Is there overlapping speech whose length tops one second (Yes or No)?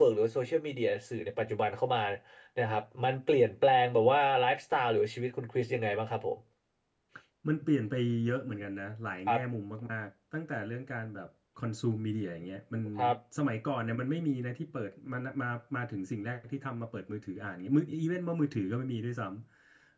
No